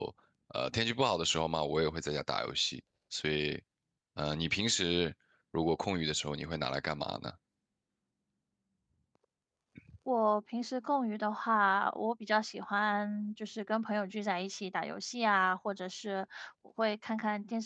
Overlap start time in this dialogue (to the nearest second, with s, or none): none